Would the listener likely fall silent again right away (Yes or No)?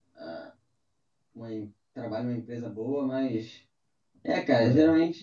Yes